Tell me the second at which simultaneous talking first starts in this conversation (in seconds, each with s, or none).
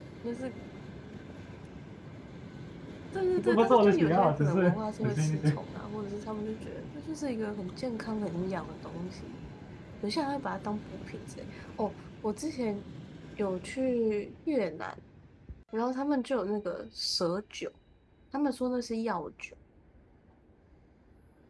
3.4 s